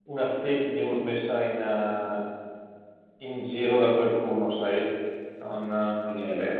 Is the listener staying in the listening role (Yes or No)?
No